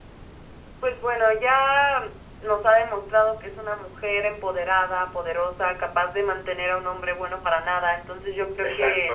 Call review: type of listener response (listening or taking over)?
listening